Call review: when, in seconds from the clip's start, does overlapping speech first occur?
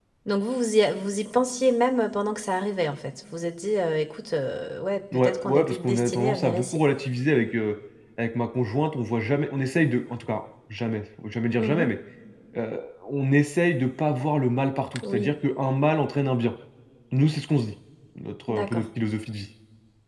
5.1 s

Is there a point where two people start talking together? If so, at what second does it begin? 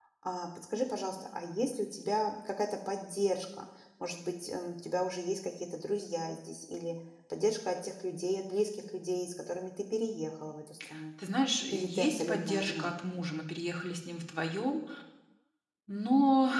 11.7 s

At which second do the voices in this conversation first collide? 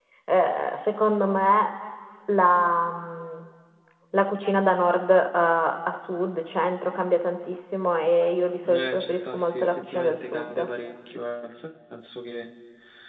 8.6 s

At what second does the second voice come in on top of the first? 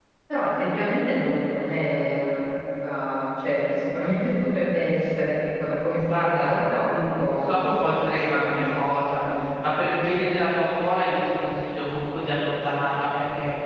6.0 s

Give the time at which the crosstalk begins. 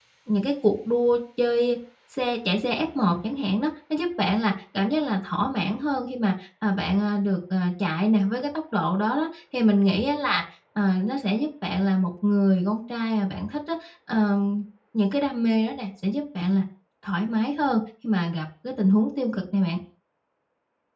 none

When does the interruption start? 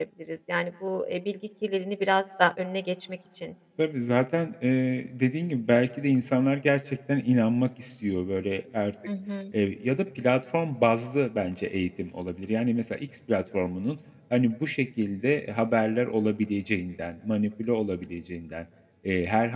none

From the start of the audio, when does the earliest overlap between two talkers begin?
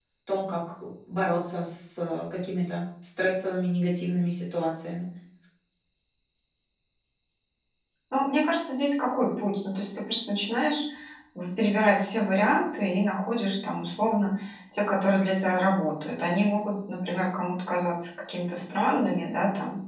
none

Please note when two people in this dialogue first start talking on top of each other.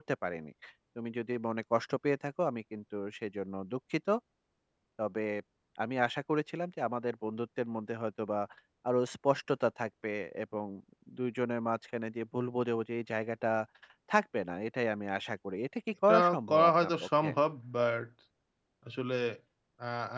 16.1 s

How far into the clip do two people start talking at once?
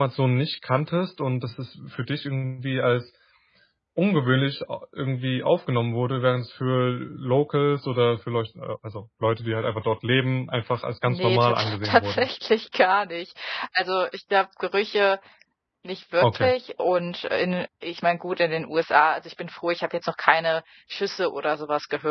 11.1 s

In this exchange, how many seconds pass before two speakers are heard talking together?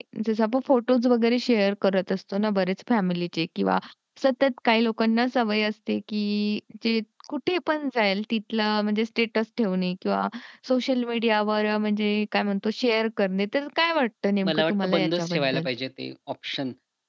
14.4 s

